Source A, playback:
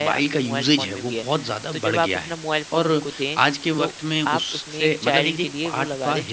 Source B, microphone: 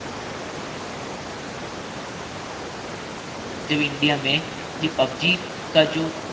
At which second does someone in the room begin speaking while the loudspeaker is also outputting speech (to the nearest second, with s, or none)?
4 s